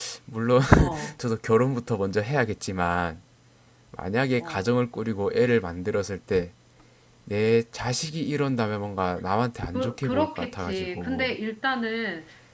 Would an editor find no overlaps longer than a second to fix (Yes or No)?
No